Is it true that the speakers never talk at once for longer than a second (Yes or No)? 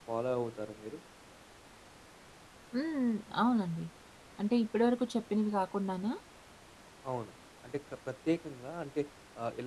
Yes